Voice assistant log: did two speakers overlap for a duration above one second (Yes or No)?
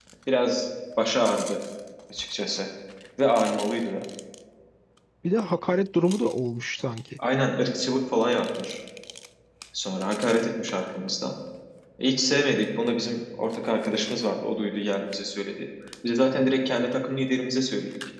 No